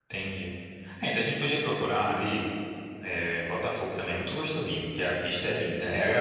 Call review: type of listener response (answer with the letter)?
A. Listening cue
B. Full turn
A